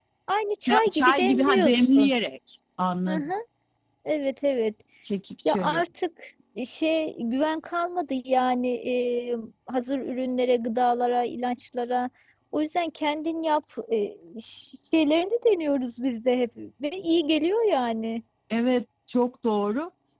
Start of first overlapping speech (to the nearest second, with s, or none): 1 s